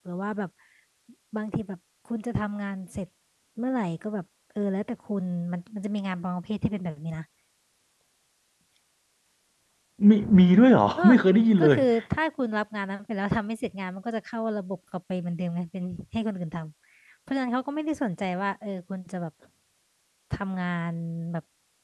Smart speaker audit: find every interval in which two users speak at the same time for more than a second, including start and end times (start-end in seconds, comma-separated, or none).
none